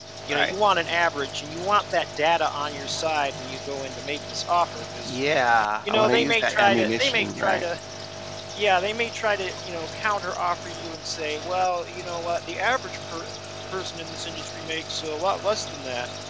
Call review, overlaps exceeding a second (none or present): present